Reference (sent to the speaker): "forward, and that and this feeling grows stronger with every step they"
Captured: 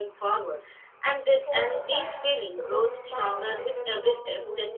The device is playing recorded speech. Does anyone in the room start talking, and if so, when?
1.4 s

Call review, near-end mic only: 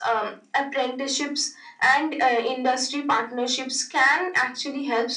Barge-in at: none

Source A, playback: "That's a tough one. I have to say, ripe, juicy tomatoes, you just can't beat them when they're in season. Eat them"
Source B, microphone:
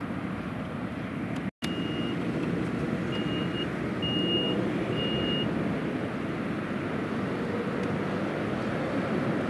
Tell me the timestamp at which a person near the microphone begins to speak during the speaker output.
none

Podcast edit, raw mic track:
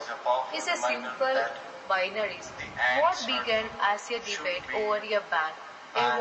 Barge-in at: none

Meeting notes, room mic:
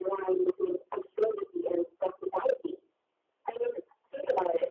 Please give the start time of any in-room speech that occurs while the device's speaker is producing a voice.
none

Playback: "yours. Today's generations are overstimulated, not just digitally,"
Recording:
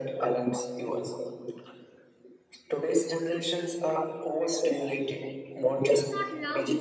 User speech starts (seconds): 5.9 s

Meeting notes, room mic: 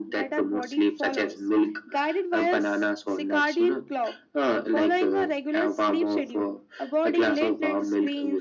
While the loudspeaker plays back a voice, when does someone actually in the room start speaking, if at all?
none

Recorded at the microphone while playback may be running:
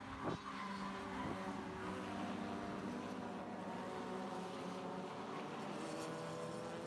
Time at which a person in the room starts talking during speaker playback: none

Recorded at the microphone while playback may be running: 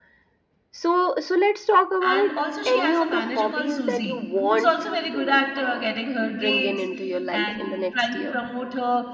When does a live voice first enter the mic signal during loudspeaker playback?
2.0 s

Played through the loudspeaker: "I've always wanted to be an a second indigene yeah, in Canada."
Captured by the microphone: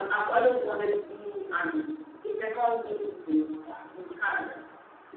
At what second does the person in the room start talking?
none

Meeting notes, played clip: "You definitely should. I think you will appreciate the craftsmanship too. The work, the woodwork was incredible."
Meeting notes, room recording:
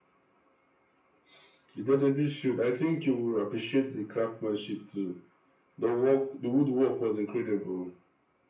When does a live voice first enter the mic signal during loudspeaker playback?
none

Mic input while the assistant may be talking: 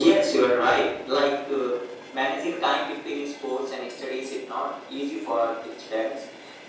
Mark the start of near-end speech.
none

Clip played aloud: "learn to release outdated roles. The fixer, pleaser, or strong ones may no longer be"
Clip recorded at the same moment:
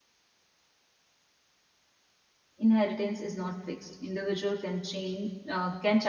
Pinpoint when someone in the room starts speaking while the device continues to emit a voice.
2.6 s

